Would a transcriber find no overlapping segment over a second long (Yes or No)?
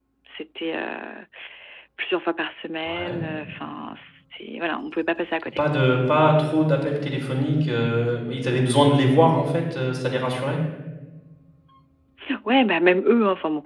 Yes